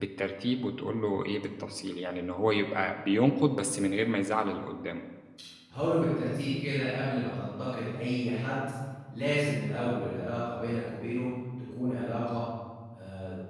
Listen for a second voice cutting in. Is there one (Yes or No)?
No